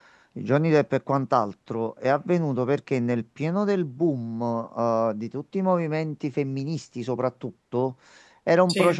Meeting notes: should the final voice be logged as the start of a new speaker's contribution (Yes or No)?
No